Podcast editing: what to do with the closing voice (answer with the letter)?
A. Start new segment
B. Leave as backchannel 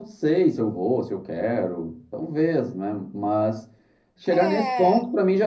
B